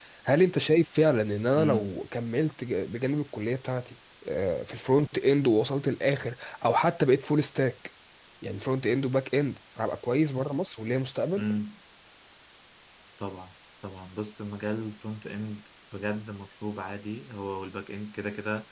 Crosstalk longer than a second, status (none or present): none